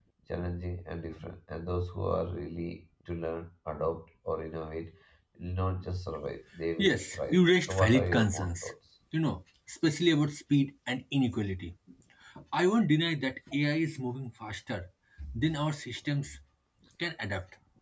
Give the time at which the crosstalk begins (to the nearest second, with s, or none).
7 s